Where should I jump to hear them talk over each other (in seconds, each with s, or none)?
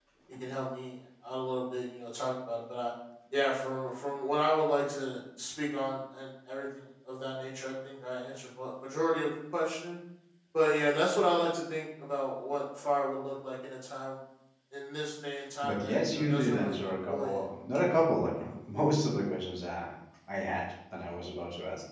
15.6 s